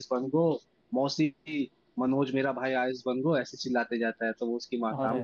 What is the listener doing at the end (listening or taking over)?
listening